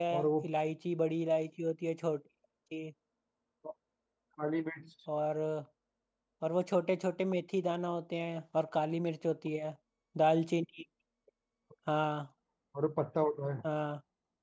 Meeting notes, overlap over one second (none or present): none